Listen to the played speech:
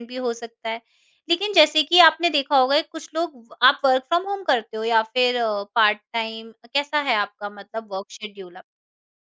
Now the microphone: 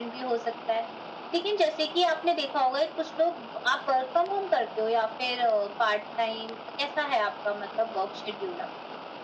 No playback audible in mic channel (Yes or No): No